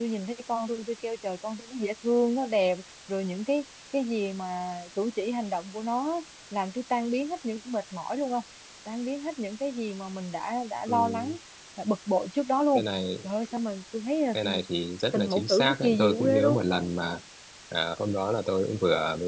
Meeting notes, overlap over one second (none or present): present